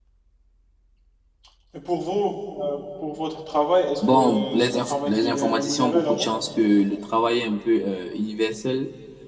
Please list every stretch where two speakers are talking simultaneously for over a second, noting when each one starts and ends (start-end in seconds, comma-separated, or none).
4.1-6.3